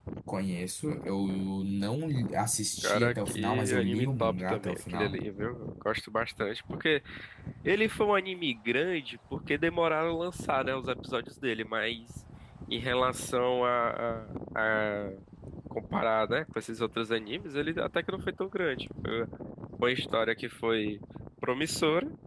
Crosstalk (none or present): present